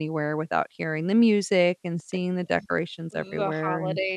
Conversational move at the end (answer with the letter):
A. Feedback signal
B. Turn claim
B